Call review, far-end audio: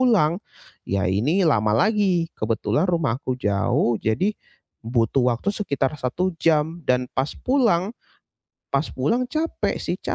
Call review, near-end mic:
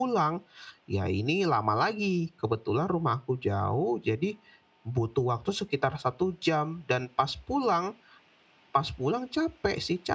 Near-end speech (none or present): none